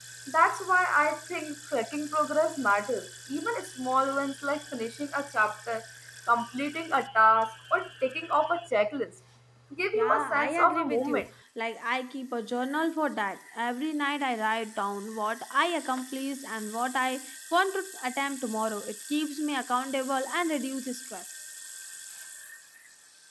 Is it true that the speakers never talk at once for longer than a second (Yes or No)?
No